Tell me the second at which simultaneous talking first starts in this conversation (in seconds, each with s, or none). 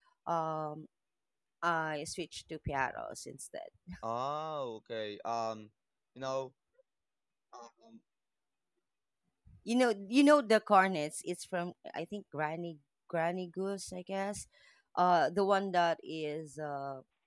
none